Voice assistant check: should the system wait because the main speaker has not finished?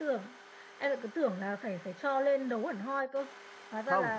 No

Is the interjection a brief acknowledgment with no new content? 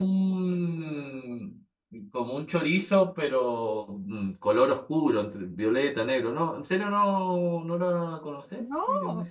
No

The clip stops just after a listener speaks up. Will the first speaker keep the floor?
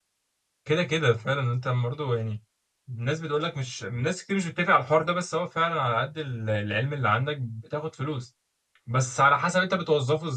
Yes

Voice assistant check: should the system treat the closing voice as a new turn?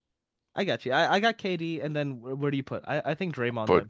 Yes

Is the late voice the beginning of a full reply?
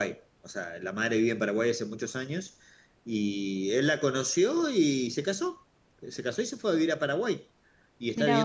No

